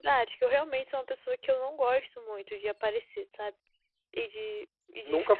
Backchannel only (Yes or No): Yes